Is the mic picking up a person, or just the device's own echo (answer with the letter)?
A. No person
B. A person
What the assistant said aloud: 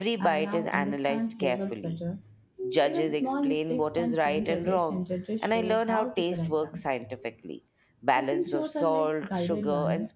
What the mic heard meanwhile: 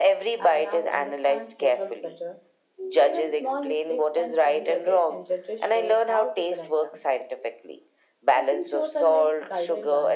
A